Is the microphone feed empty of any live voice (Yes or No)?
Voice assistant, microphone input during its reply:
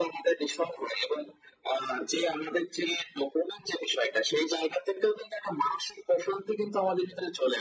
Yes